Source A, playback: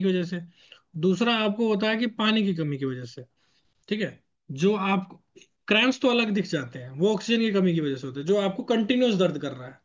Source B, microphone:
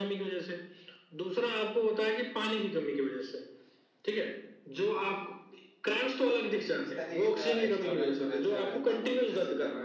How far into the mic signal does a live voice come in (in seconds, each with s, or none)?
6.8 s